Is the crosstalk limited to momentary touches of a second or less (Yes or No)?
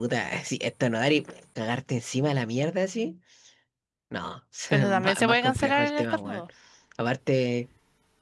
No